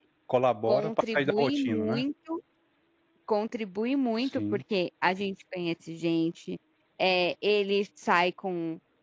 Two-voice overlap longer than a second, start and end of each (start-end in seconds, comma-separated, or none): 0.7-2.0